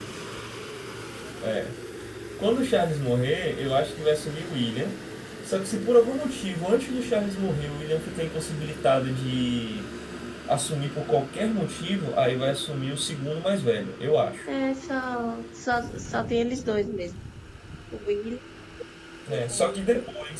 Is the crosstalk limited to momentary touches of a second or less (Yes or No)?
Yes